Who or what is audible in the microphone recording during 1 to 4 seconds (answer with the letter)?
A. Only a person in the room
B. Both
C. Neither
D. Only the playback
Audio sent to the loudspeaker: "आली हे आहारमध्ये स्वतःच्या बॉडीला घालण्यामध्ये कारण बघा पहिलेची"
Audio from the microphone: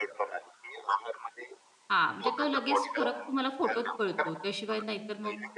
B